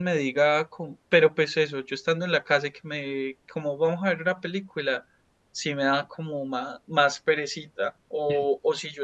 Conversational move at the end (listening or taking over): listening